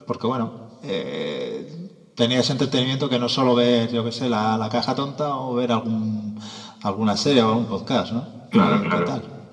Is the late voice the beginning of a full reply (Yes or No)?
Yes